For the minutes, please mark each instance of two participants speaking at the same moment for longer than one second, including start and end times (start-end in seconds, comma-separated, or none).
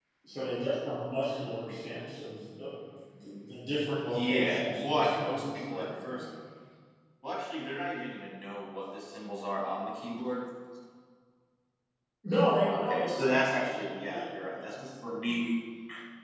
4.1-6.2, 12.7-14.7